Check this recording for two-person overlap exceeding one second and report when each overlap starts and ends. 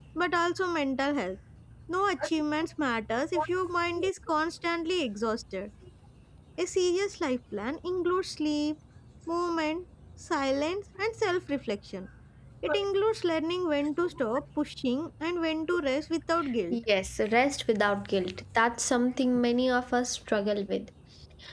none

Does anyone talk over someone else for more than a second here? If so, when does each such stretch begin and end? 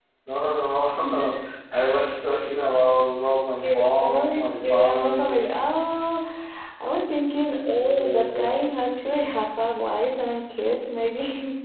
3.6-5.3

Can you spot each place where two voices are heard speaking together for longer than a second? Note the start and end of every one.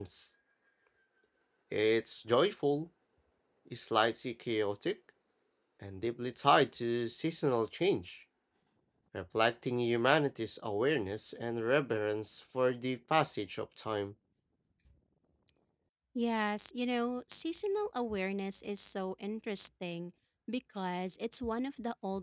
none

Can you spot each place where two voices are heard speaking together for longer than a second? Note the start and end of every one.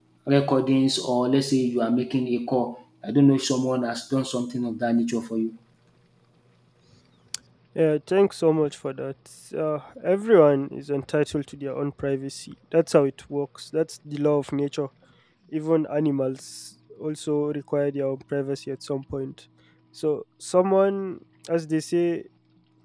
none

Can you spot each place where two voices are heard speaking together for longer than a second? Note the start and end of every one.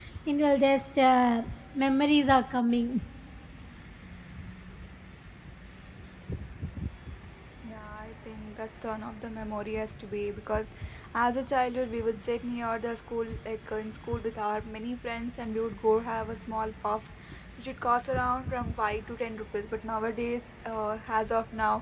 none

